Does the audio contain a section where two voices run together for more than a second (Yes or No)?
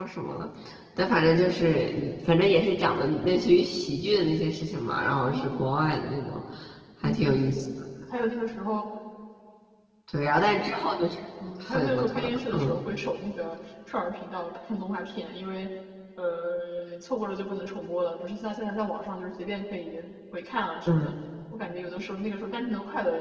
Yes